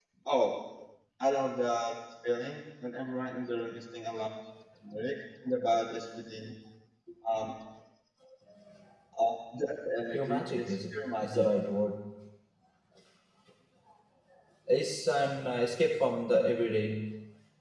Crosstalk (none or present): present